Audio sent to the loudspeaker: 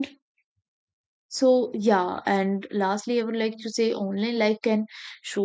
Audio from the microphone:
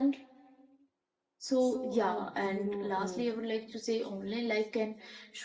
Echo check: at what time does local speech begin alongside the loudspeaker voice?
1.6 s

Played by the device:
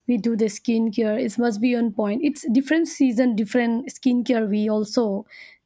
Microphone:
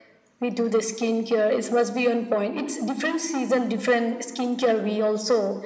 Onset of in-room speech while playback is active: none

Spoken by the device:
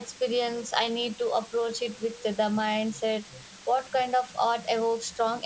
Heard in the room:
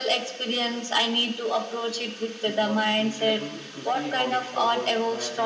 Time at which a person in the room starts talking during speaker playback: 2.4 s

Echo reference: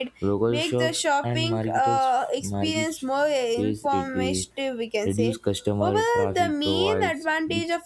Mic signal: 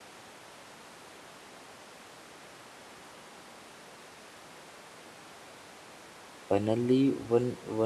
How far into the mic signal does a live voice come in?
6.5 s

